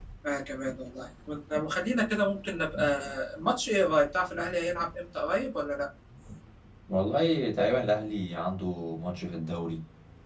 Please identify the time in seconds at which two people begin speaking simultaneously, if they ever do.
none

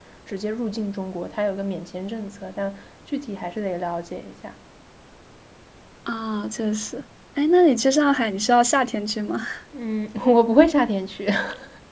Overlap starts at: none

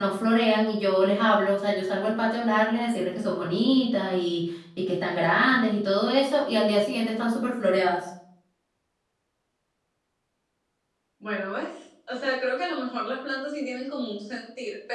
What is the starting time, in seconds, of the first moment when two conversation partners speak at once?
none

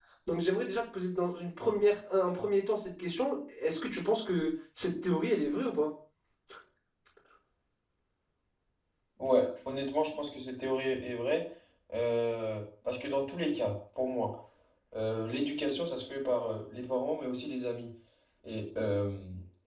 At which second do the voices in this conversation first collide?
none

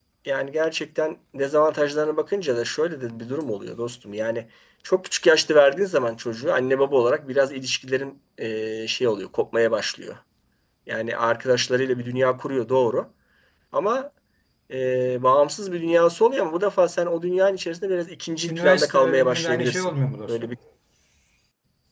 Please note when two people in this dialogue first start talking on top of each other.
18 s

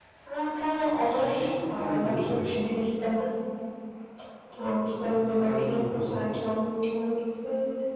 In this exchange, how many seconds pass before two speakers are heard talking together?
1 s

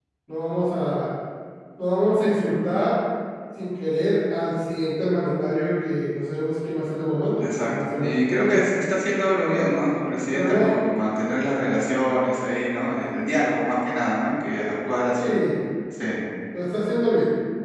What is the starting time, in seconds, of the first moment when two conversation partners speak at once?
7 s

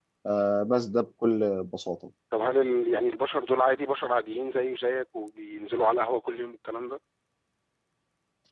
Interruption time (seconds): none

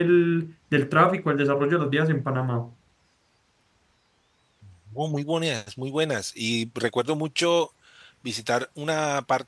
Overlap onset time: none

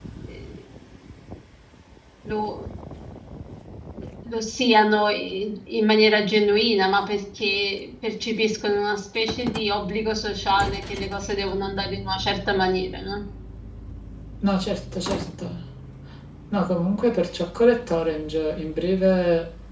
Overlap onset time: none

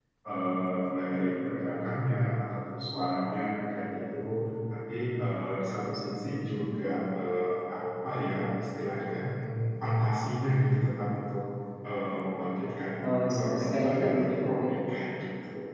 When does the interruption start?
13 s

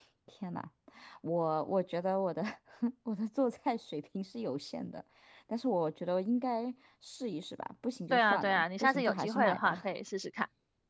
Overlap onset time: 8 s

